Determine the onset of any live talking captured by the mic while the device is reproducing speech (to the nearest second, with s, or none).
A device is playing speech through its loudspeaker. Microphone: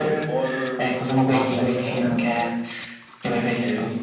1 s